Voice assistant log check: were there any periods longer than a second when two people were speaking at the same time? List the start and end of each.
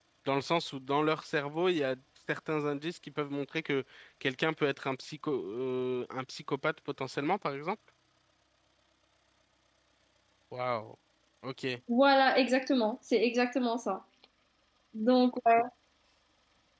none

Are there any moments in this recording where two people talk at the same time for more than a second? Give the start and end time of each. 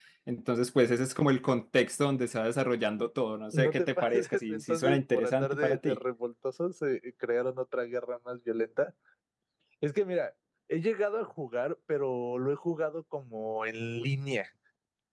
3.5-6.0

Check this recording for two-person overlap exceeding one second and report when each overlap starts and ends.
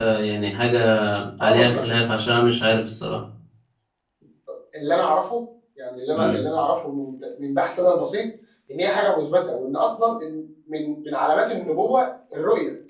none

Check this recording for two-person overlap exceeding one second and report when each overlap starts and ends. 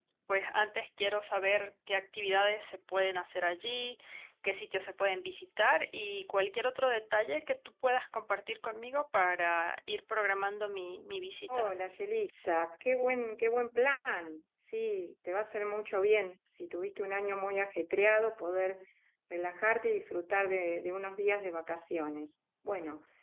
none

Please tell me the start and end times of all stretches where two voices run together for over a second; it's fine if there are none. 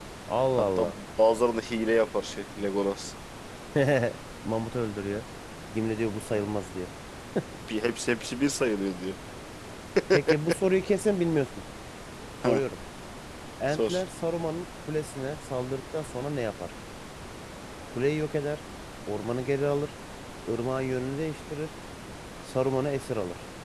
none

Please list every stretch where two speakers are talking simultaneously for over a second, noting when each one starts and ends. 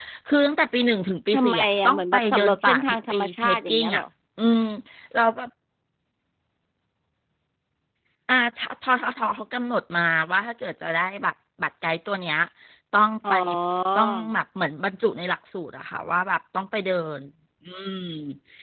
1.3-4.0

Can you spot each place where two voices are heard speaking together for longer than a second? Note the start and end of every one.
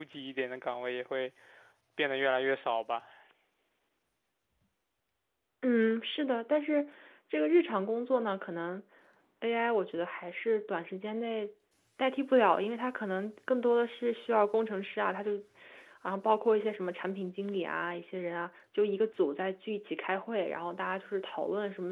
none

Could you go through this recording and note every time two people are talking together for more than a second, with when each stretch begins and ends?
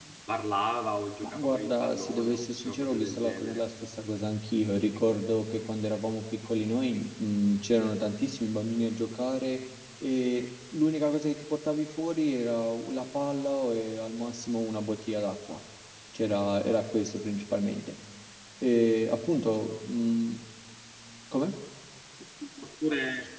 1.2-3.6

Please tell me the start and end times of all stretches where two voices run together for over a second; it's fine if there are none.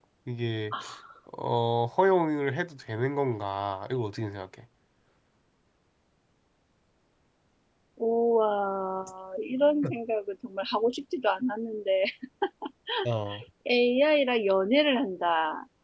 none

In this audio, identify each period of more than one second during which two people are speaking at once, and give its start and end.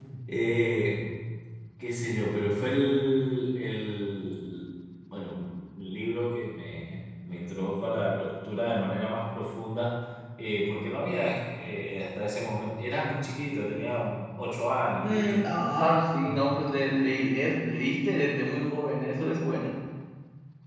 none

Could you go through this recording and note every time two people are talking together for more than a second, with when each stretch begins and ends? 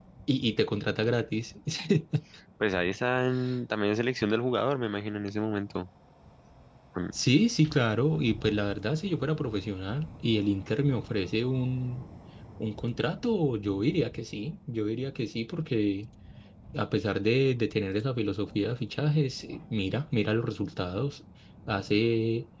none

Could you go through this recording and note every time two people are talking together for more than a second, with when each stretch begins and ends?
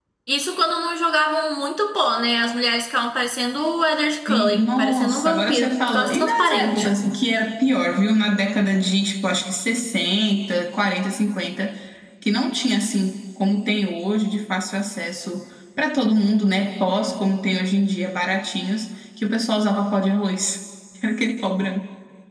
4.3-6.9

